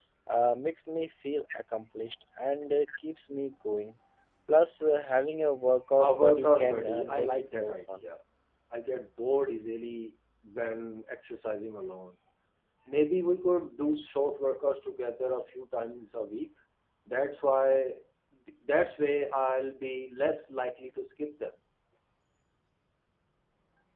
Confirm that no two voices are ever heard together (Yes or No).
No